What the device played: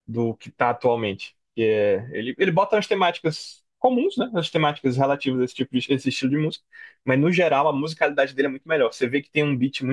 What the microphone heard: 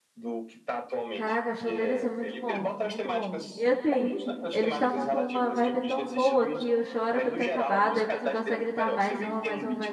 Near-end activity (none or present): present